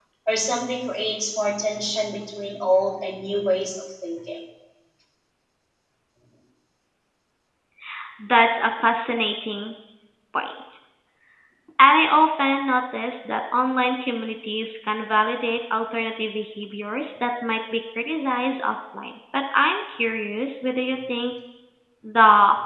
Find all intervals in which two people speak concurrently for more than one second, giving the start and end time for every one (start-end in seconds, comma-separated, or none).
none